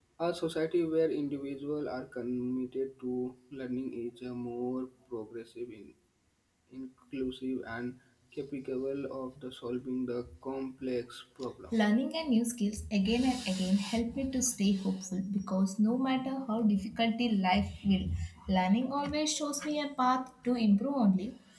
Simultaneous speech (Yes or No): No